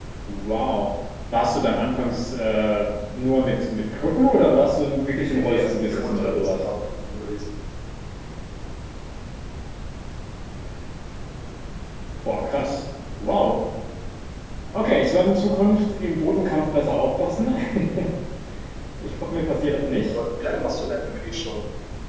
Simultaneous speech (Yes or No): Yes